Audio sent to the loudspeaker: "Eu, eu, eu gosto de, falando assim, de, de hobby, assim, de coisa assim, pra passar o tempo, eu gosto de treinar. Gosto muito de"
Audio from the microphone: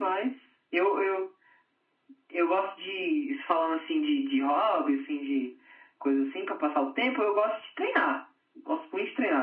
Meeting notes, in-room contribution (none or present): none